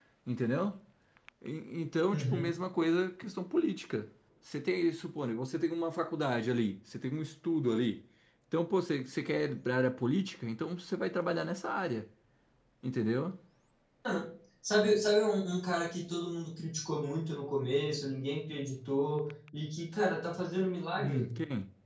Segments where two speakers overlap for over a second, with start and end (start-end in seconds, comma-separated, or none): none